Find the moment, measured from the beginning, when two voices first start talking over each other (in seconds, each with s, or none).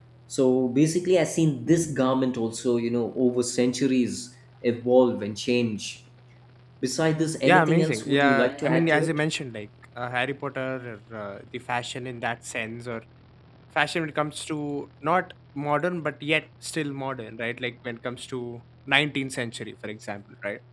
7.5 s